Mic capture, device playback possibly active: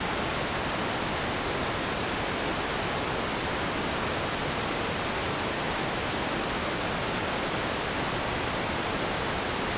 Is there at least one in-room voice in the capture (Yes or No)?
No